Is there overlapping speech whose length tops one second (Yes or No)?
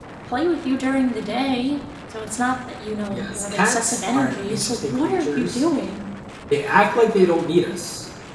Yes